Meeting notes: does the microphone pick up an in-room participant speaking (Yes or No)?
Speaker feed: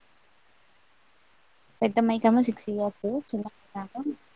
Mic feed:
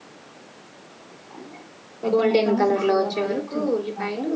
Yes